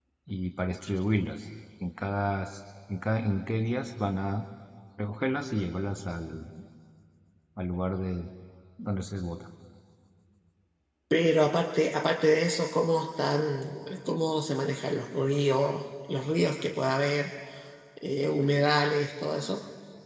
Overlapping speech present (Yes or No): No